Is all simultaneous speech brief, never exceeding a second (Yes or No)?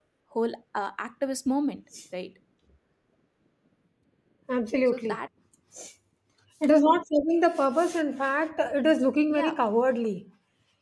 Yes